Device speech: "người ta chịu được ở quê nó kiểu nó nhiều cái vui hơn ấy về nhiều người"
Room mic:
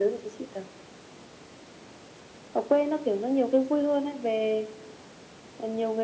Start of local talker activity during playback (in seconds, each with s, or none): none